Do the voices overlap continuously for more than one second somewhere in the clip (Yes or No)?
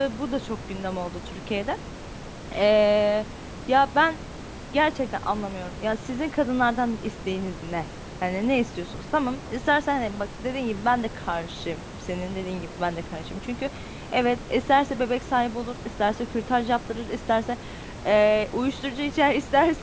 No